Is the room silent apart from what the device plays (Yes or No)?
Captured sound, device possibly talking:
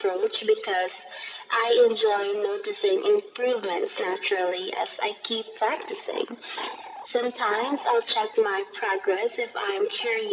Yes